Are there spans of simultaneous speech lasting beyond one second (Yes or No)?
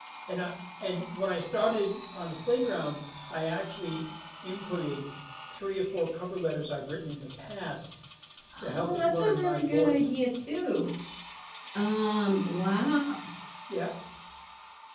Yes